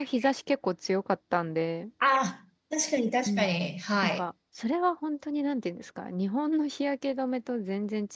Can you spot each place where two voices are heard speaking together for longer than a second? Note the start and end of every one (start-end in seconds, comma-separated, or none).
none